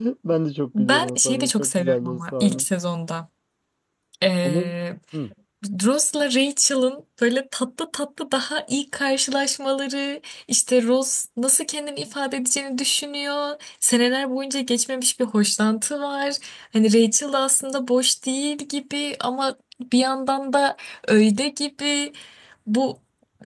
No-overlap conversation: No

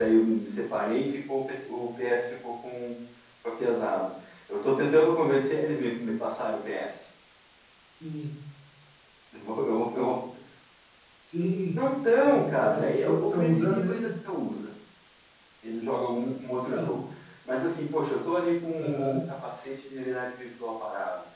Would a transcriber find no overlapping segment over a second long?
No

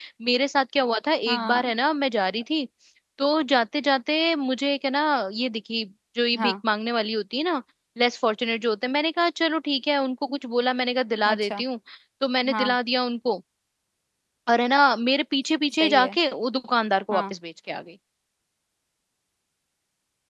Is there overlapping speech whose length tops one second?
No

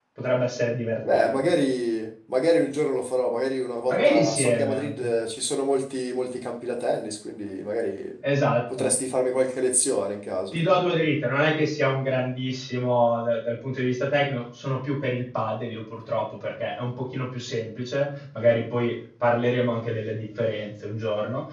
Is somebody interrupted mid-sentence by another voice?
Yes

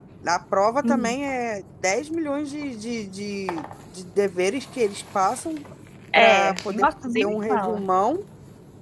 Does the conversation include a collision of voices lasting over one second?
Yes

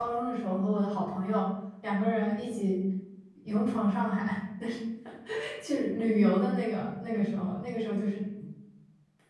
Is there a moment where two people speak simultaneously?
No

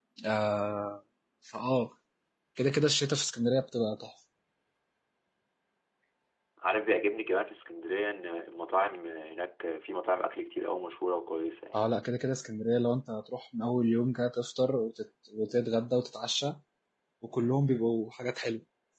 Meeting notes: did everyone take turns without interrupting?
Yes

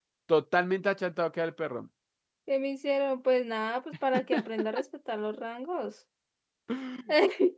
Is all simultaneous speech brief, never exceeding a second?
Yes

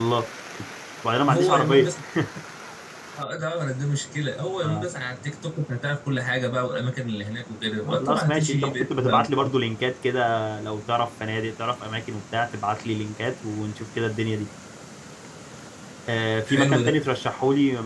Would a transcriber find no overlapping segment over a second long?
No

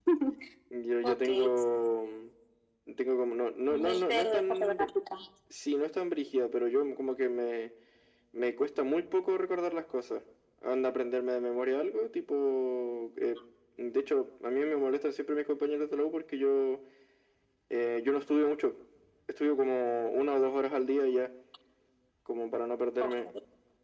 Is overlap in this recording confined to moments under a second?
No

